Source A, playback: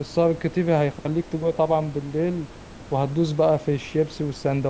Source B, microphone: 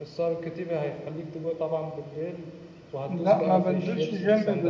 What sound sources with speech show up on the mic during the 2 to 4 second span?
both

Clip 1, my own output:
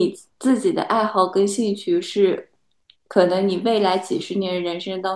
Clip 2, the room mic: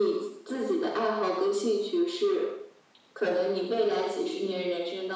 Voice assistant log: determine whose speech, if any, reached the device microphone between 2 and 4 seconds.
echo only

